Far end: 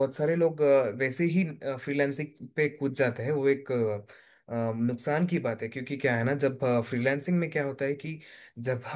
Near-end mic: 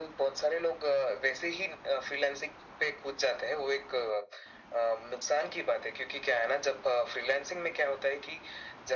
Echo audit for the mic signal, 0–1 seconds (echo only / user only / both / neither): echo only